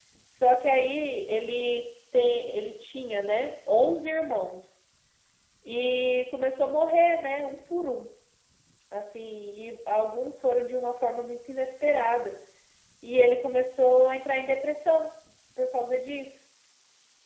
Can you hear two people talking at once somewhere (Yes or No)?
No